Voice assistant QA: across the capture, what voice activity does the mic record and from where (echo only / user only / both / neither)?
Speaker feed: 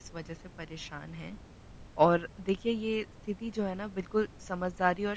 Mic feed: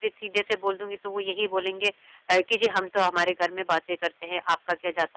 user only